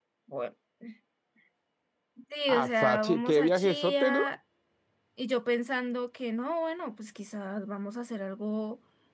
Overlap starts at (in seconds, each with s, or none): 2.5 s